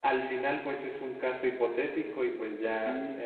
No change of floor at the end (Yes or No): Yes